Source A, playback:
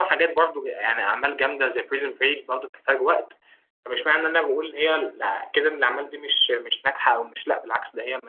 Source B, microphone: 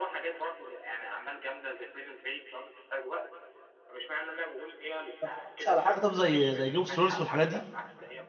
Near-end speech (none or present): present